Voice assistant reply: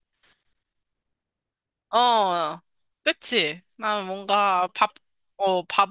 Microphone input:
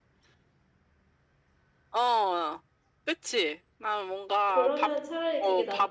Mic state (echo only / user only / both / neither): both